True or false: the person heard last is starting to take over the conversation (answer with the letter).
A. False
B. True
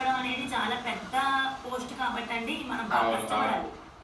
B